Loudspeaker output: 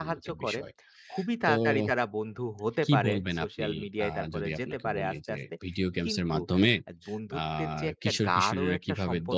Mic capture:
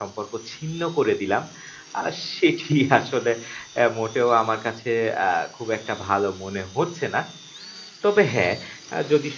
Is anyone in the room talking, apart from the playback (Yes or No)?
Yes